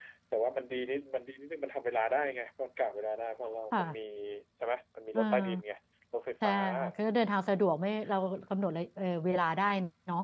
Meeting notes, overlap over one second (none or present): none